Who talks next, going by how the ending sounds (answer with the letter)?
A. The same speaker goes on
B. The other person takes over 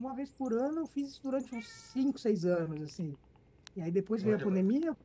A